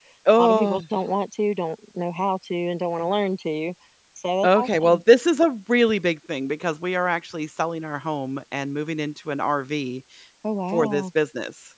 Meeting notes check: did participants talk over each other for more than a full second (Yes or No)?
No